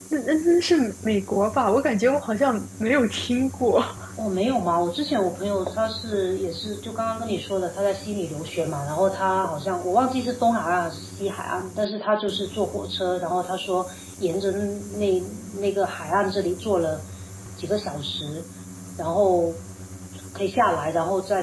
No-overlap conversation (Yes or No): Yes